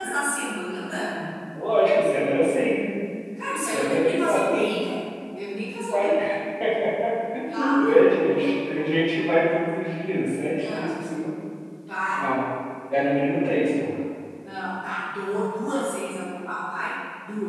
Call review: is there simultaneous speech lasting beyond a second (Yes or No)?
Yes